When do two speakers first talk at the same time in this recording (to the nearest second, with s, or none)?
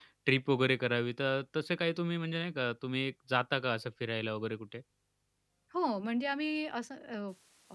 none